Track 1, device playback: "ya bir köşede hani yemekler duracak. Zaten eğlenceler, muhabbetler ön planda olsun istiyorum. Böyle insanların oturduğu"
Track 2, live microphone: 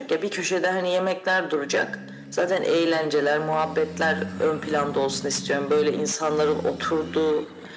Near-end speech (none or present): none